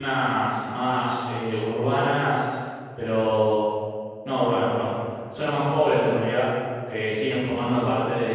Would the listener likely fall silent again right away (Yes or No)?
Yes